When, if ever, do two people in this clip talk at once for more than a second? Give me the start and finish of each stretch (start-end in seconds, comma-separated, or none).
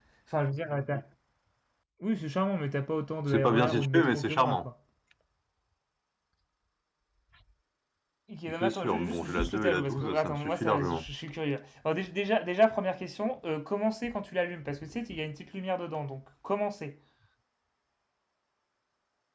3.3-4.7, 8.6-11.0